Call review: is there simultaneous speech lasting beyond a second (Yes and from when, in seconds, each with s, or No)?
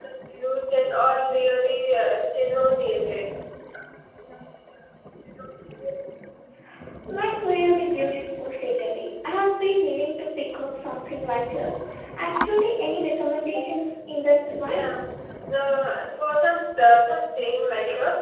No